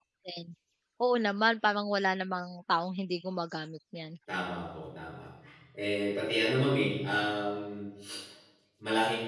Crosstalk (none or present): none